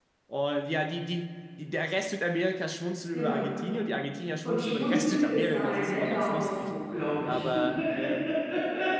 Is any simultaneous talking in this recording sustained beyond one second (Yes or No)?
Yes